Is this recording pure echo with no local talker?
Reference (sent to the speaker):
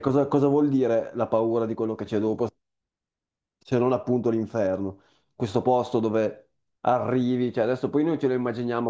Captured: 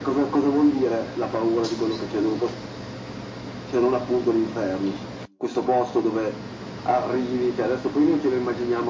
Yes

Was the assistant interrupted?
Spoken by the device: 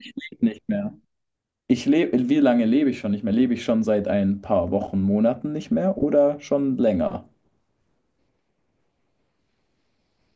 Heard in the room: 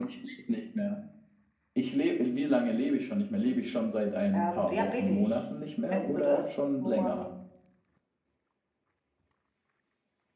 Yes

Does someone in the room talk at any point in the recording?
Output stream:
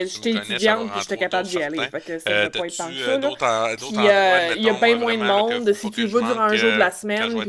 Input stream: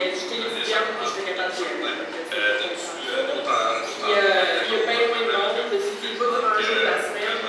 No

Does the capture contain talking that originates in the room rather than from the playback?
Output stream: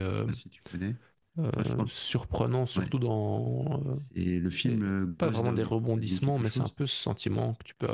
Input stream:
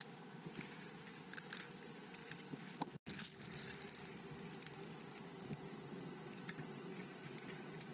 No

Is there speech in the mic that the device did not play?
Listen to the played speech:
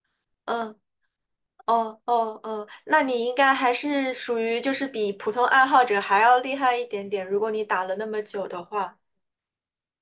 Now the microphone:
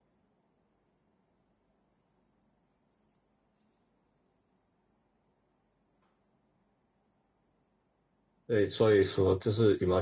Yes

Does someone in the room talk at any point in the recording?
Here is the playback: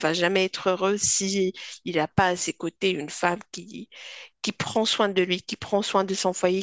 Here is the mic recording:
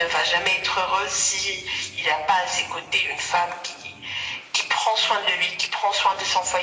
No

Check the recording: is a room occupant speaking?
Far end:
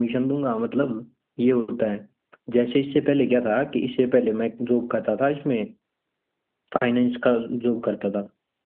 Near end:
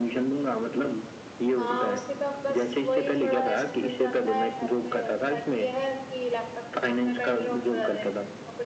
Yes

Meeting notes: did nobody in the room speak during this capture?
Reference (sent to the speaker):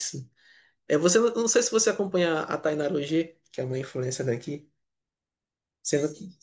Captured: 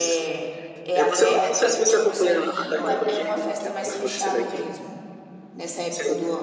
No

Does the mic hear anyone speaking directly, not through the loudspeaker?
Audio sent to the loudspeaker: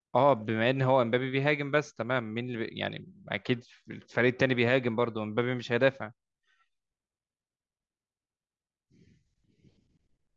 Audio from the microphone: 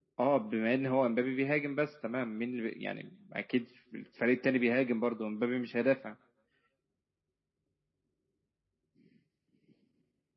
No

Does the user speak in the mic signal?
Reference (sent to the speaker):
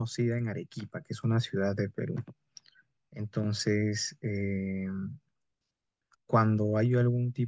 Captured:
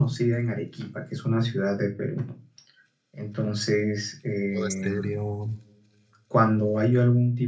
Yes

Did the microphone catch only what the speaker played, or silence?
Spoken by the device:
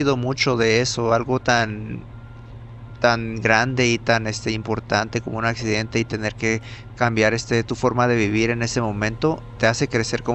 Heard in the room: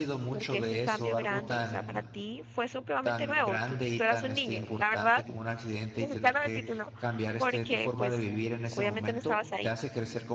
No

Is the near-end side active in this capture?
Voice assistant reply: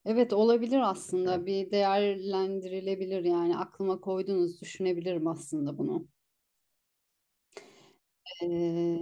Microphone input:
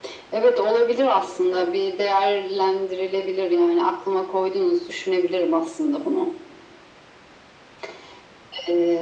No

